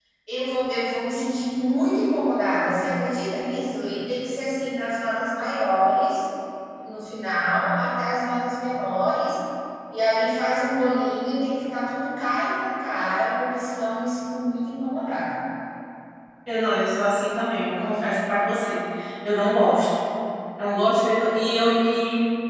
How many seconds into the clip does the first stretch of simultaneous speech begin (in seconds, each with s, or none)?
none